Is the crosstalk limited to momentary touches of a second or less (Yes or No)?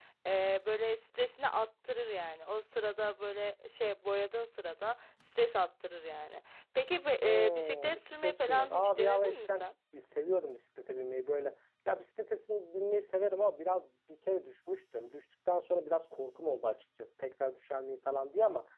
No